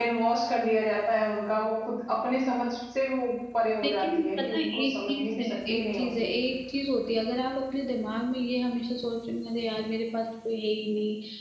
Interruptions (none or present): present